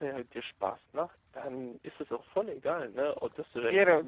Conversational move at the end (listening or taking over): listening